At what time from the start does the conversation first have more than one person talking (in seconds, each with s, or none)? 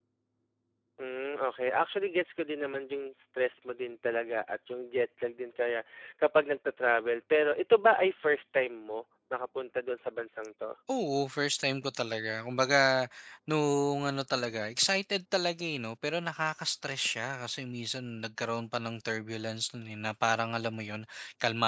none